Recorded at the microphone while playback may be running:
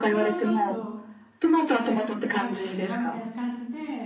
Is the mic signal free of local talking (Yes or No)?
No